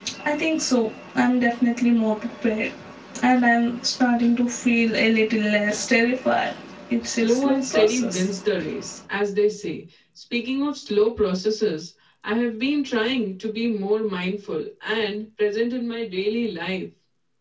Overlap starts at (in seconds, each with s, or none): 7.0 s